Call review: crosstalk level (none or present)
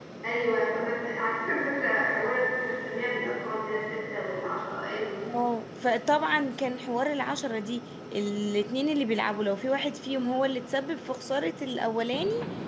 none